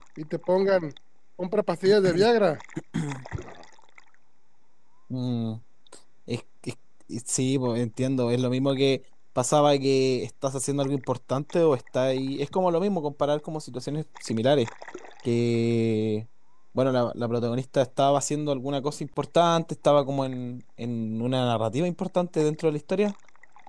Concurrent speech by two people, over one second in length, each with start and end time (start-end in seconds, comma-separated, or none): none